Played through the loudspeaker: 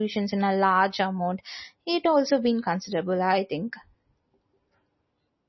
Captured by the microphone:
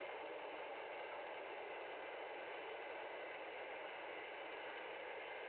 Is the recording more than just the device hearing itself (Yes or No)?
No